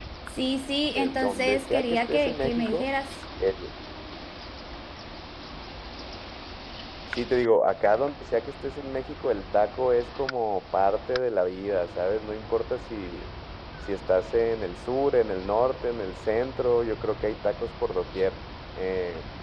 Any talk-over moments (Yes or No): Yes